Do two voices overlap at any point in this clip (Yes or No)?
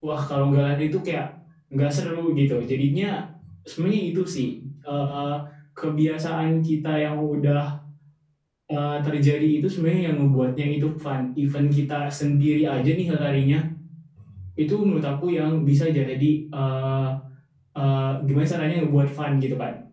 No